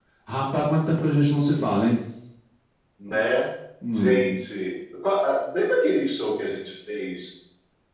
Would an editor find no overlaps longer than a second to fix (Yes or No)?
Yes